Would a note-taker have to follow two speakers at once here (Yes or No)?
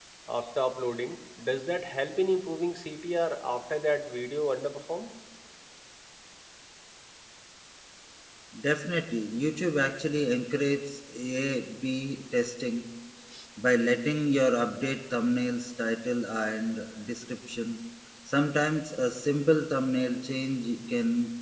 No